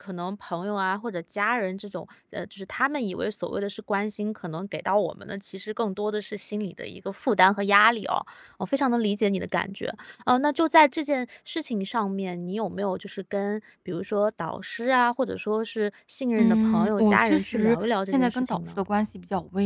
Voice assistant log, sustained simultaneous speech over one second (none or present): present